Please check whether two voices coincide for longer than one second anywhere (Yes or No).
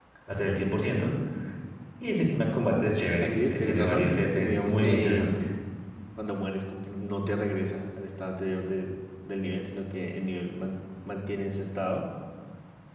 Yes